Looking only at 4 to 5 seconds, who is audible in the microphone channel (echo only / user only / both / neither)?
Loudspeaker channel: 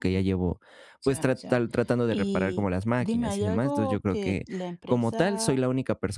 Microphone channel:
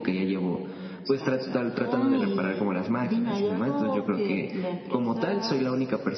echo only